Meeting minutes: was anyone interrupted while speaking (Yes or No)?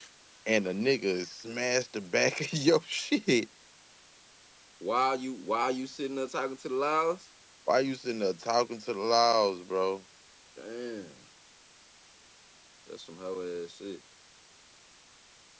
No